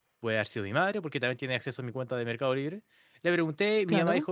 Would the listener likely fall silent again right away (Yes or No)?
Yes